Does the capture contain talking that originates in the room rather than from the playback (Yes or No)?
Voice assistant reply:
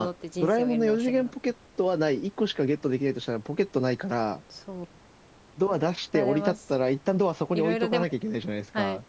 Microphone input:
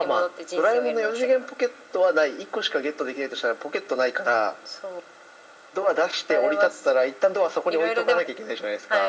No